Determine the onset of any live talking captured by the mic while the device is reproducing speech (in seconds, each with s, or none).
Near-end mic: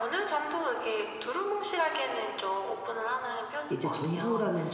3.7 s